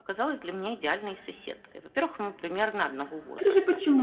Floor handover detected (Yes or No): Yes